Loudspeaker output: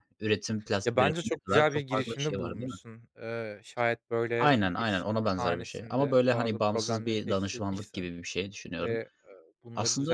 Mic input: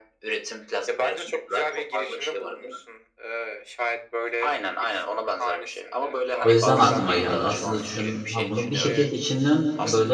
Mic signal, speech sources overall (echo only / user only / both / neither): both